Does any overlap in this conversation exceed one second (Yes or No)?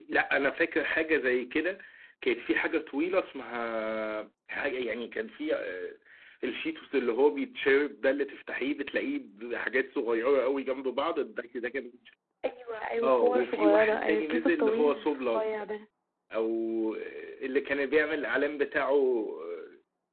Yes